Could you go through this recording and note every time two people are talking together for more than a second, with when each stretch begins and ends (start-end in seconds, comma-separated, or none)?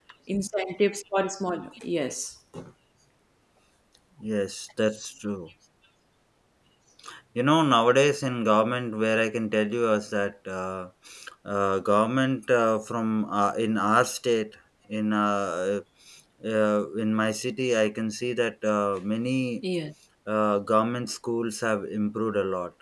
none